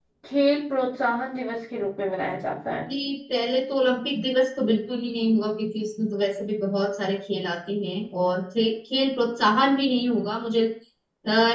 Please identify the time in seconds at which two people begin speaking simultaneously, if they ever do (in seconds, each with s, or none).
none